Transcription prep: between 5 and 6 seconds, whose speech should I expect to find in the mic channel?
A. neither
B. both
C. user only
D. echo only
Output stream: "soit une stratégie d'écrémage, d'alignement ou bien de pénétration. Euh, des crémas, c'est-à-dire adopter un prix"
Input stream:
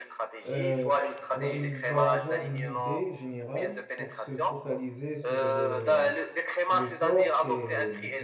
B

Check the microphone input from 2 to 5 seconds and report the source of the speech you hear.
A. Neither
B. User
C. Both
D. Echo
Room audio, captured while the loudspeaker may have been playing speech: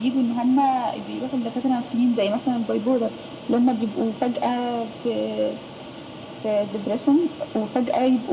D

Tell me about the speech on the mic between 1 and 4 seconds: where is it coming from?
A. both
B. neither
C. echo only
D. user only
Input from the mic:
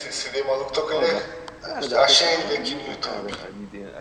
A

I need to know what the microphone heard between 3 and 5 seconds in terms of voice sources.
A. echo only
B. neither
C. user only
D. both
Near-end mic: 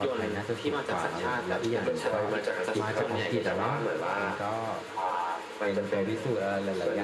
D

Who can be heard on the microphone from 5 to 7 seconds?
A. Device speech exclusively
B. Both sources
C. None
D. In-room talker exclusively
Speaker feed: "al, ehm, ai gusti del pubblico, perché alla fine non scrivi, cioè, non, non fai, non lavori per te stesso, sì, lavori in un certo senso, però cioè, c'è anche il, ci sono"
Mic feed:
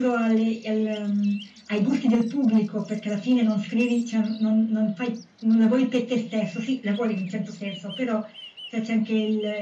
A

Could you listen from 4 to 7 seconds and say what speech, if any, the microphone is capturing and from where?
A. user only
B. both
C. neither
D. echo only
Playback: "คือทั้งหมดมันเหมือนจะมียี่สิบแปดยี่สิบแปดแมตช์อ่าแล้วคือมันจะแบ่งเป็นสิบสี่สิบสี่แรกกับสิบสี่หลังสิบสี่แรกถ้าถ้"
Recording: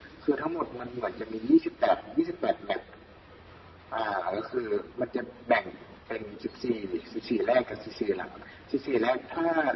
D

